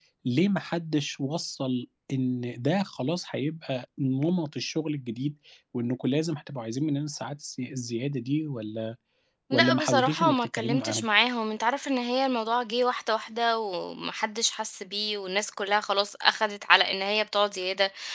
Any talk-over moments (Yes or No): Yes